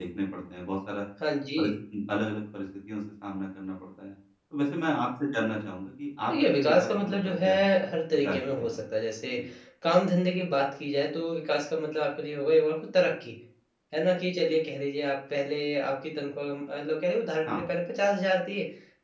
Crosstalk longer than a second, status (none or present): present